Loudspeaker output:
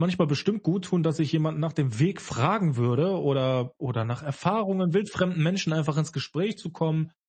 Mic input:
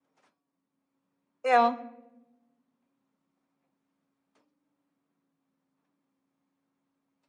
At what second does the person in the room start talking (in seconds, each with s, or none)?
1.4 s